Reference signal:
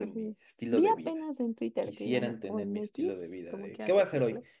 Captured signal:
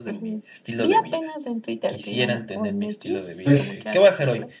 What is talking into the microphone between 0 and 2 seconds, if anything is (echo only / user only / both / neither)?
echo only